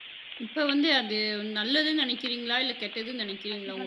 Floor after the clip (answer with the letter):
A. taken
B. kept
A